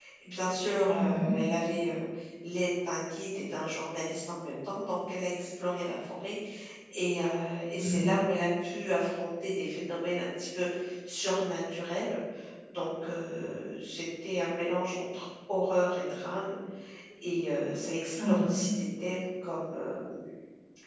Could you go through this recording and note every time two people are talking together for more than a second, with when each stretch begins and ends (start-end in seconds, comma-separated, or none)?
none